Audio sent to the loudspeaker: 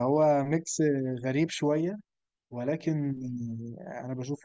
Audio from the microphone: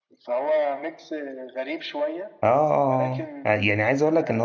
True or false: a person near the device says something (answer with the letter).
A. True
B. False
A